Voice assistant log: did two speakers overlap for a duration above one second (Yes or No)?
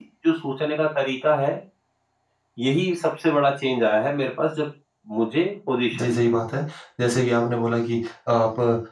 No